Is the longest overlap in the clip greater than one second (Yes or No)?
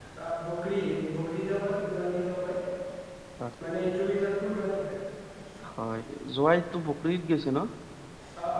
No